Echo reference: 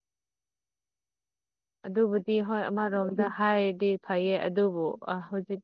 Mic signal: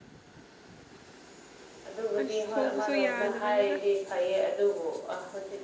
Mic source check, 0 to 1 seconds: neither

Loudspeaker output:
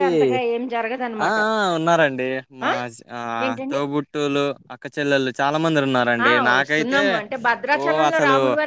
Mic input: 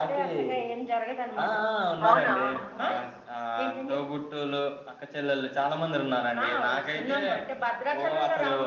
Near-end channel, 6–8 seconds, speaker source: echo only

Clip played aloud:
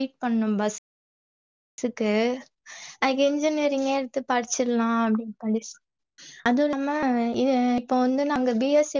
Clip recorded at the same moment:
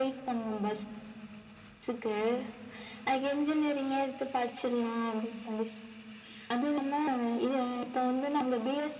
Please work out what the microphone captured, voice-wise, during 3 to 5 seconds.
echo only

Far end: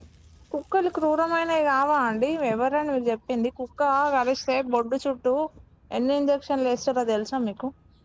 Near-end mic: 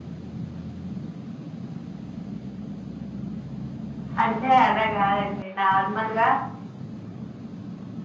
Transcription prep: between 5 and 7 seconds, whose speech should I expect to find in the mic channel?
user only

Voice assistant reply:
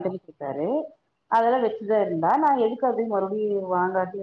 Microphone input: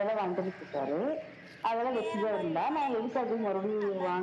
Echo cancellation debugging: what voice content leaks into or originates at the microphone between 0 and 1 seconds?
echo only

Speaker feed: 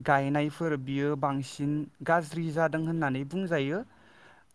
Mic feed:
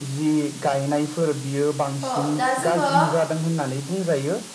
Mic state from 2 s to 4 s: both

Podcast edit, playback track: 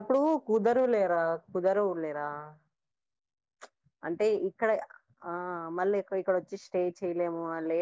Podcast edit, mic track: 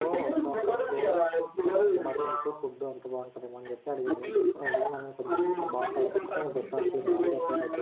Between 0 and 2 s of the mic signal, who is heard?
both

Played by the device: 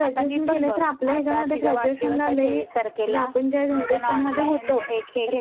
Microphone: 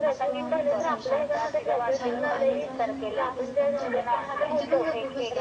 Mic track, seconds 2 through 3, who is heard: both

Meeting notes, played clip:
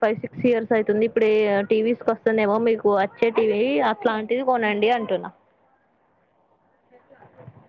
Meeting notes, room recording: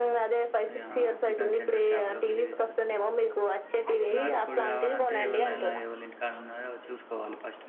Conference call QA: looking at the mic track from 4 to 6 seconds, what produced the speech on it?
both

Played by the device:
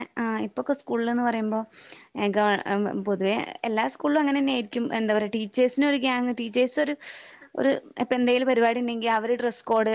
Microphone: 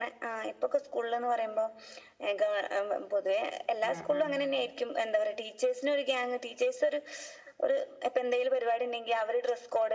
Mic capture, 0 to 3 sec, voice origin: echo only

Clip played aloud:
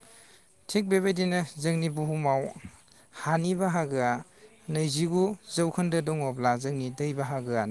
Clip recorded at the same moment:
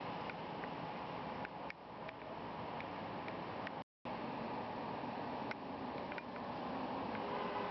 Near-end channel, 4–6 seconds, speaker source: neither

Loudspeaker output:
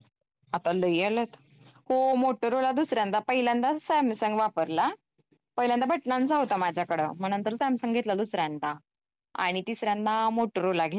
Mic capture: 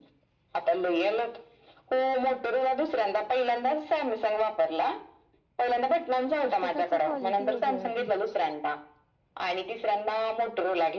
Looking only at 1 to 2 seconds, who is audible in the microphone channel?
echo only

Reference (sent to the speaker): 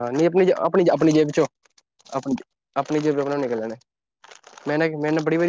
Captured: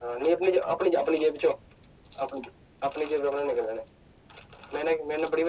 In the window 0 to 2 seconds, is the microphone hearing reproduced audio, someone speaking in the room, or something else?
echo only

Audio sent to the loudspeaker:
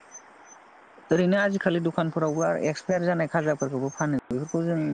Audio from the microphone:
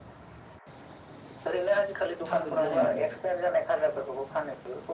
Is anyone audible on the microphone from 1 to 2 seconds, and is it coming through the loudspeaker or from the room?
echo only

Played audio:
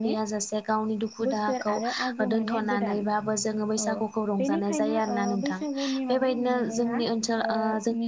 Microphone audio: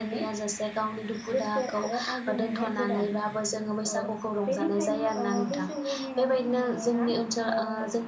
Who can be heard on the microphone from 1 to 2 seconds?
echo only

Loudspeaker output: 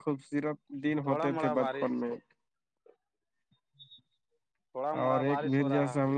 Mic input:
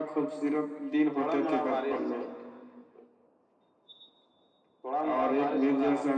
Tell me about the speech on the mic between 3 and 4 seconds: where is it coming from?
neither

